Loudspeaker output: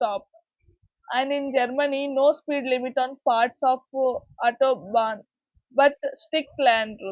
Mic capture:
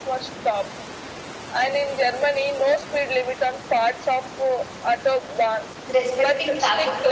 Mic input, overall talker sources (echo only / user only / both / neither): both